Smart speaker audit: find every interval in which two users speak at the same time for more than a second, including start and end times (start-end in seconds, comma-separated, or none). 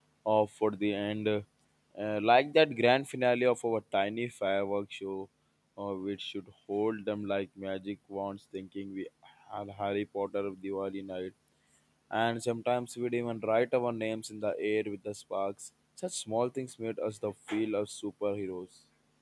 none